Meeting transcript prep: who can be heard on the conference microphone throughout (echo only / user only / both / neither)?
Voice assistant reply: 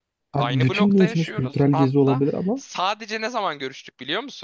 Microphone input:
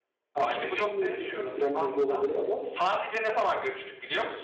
echo only